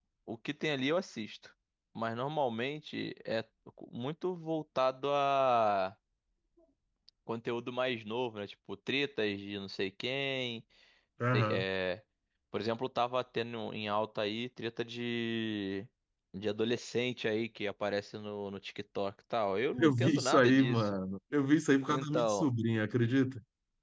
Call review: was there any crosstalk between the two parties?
Yes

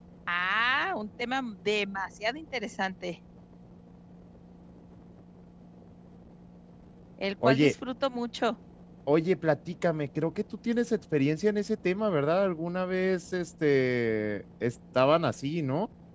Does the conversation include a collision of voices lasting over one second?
No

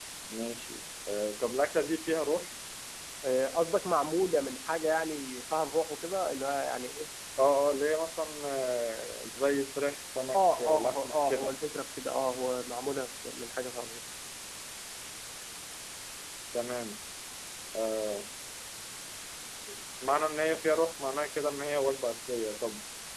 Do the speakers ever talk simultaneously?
Yes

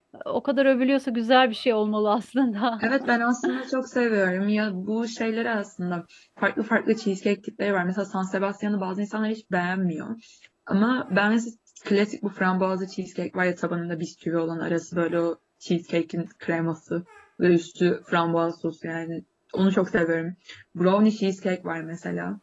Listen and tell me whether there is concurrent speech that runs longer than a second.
No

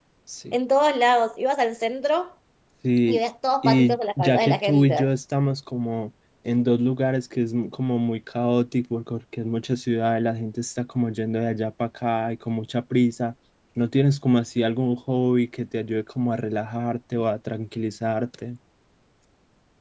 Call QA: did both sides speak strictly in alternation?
No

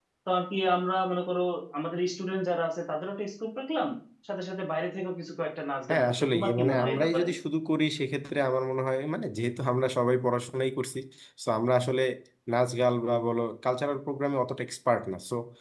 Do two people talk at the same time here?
Yes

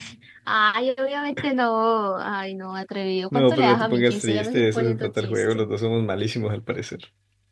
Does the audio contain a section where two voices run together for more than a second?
Yes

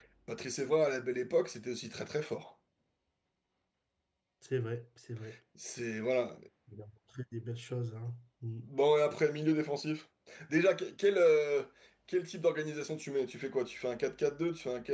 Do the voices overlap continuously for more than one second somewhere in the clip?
No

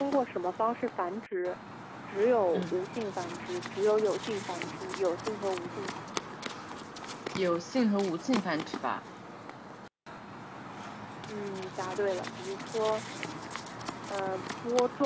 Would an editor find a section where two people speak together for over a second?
No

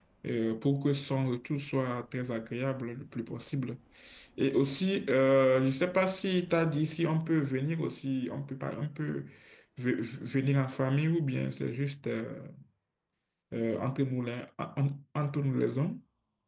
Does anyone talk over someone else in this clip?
No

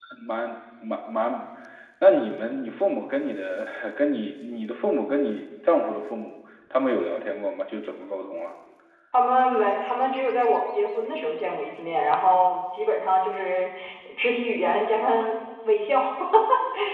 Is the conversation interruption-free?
Yes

